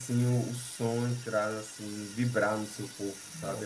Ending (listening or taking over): taking over